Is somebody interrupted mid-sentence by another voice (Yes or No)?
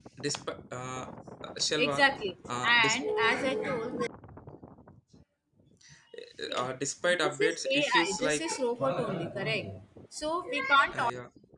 Yes